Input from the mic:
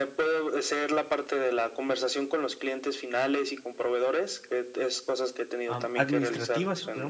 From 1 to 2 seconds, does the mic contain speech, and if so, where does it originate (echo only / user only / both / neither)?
echo only